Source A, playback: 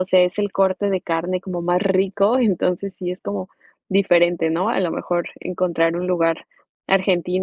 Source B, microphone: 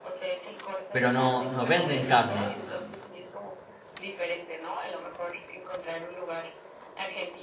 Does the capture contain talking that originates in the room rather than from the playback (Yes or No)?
Yes